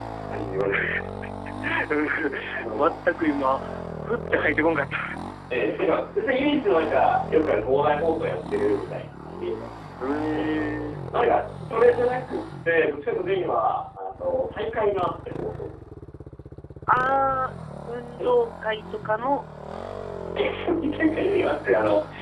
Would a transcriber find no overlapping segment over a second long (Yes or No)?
Yes